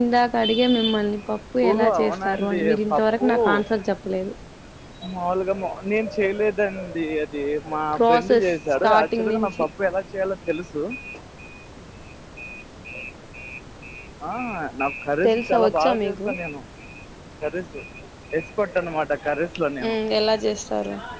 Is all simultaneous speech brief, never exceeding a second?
No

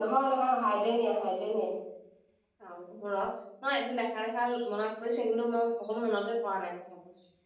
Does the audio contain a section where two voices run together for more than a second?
No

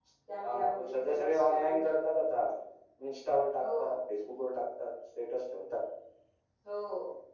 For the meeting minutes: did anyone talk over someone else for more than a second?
Yes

